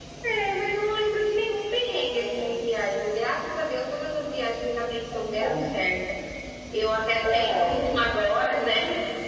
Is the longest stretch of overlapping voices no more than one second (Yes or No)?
Yes